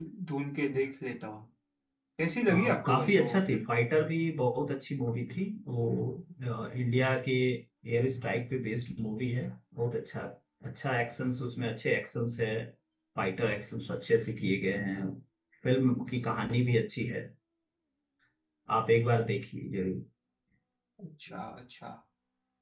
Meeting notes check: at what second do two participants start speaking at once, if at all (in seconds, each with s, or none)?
2.5 s